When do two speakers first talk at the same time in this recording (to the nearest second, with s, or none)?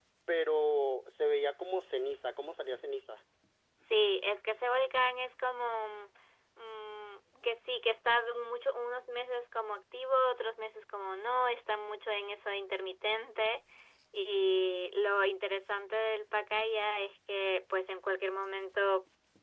none